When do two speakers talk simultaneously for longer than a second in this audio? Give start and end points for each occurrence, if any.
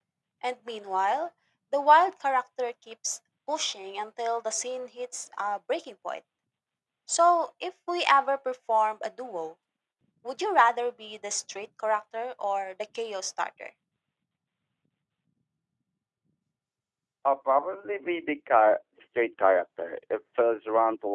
none

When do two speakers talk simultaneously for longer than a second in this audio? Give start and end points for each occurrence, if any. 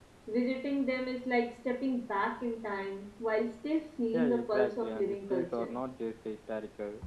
4.1-5.7

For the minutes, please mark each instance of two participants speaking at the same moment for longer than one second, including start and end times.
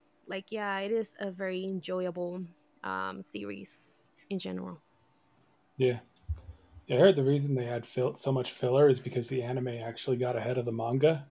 none

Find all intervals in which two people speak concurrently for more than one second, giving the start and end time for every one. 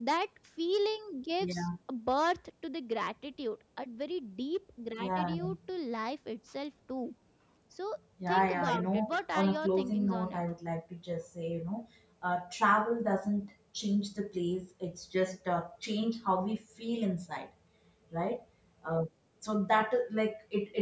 8.3-10.4

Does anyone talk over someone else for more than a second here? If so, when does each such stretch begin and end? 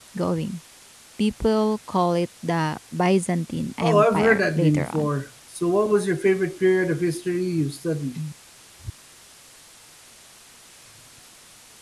3.8-5.1

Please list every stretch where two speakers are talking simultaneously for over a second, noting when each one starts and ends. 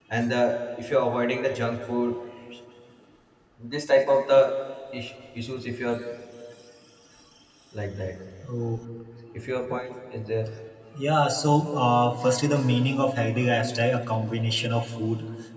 none

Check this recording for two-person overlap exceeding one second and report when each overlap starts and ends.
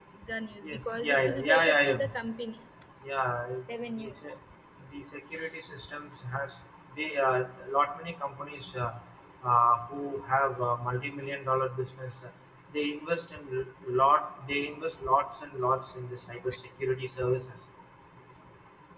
0.6-2.1

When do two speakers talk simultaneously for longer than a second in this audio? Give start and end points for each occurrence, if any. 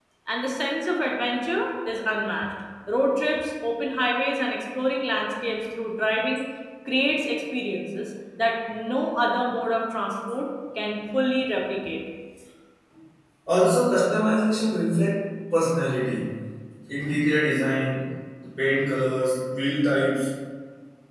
none

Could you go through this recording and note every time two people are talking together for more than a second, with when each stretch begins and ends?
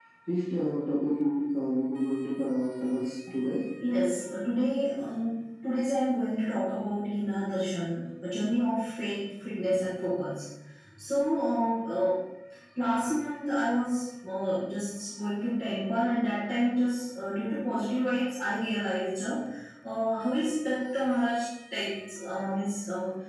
none

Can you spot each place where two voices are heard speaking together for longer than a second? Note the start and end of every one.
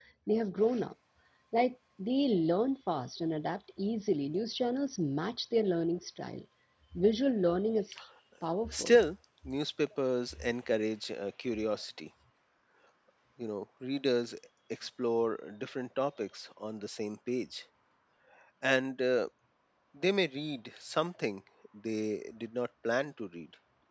none

